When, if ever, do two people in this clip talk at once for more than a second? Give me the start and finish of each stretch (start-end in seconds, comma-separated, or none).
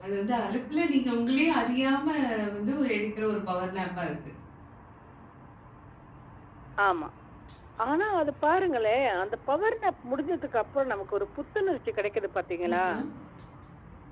none